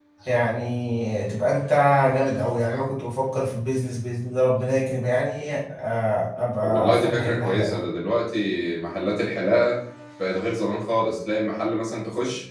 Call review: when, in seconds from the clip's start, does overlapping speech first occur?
6.6 s

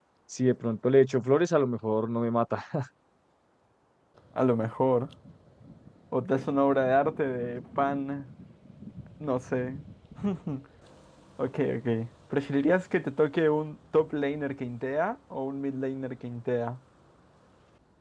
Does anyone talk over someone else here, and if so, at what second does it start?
none

